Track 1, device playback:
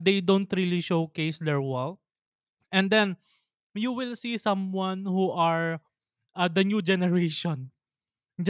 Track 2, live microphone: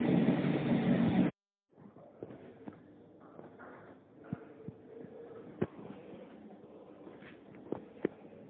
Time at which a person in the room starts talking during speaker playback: none

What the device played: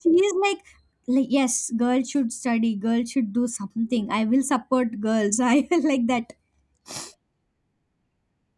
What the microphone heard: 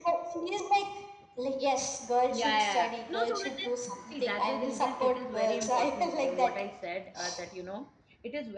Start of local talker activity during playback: 2.3 s

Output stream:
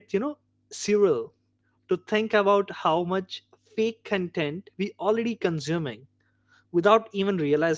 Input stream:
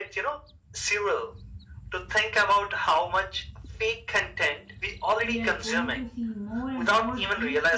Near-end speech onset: 5.2 s

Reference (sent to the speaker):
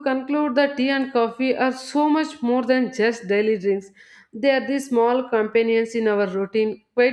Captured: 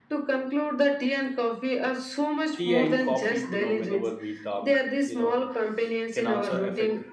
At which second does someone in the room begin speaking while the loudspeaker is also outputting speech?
2.6 s

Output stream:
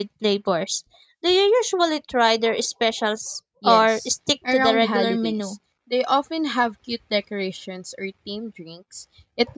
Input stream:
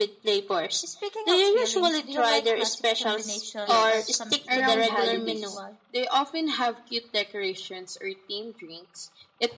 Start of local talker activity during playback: 0.8 s

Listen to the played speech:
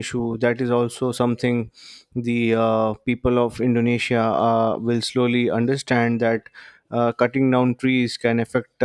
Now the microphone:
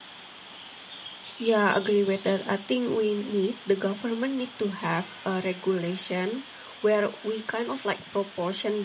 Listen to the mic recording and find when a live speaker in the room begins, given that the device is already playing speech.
1.4 s

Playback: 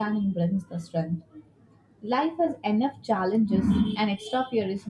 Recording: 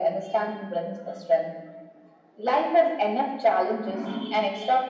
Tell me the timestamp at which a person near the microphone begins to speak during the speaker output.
none

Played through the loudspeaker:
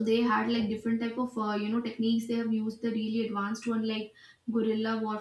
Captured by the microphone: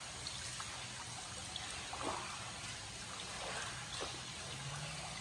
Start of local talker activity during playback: none

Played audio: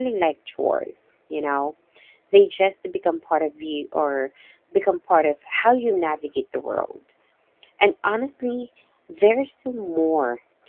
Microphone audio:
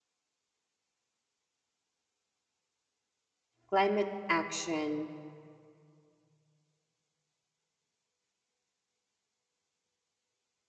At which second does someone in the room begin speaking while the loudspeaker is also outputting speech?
3.7 s

